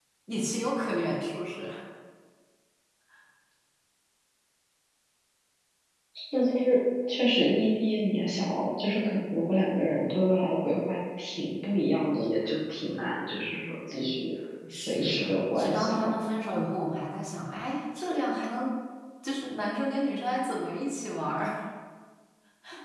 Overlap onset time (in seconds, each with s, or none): 14.9 s